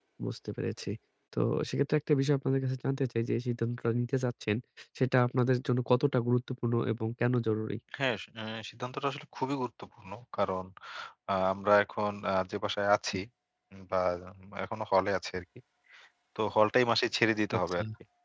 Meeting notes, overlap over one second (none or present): none